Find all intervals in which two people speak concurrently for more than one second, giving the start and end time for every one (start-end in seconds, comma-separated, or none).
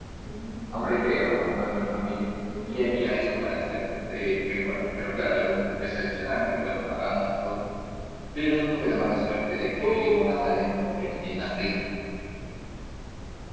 9.8-11.4